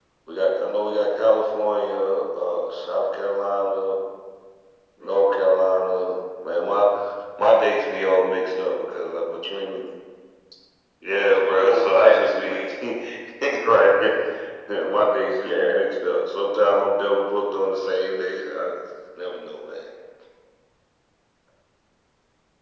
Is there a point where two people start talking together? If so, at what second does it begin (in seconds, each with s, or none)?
11.3 s